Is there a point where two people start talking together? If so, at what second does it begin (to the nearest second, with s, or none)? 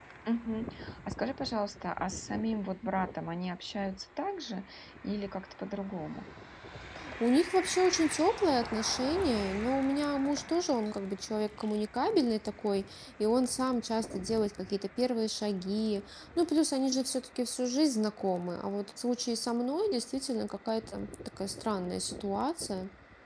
none